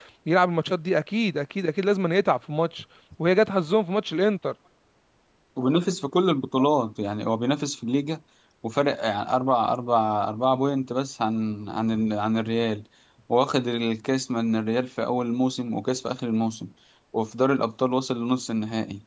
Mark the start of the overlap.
none

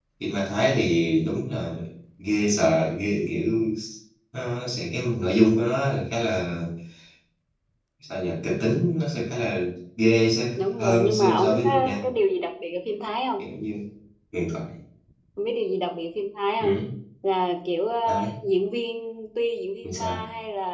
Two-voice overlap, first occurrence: 10.6 s

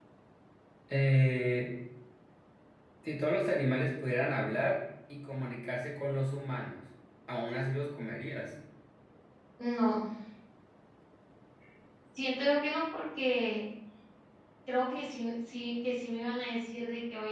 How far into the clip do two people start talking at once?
none

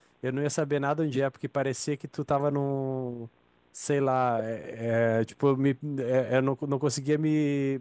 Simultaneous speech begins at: none

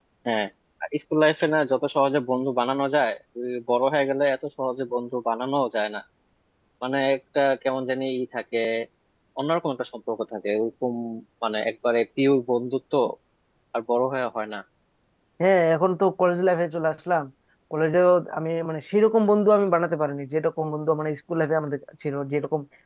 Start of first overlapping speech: none

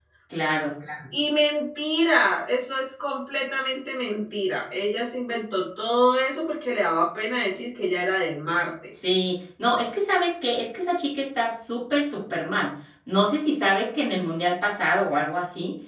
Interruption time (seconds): none

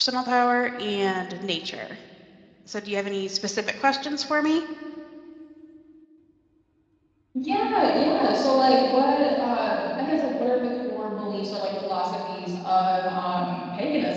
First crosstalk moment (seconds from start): none

